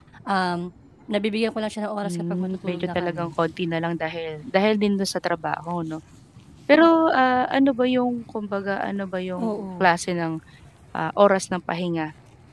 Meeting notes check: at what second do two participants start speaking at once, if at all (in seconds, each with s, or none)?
2.0 s